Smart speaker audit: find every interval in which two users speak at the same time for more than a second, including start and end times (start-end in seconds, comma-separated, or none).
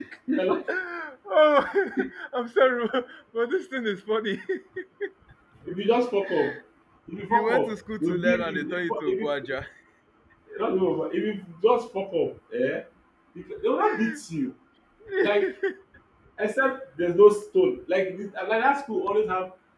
7.3-9.6